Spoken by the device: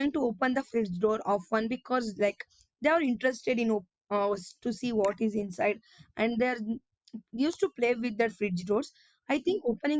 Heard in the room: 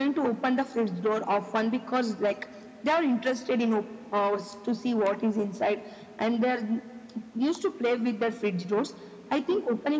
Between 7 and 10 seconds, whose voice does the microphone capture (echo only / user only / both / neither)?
echo only